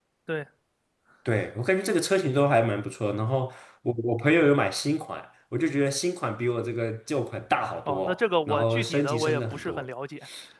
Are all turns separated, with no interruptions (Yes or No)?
No